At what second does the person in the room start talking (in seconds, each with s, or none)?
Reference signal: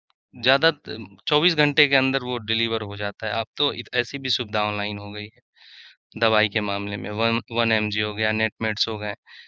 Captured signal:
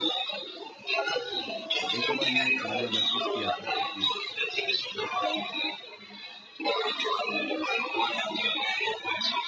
1.8 s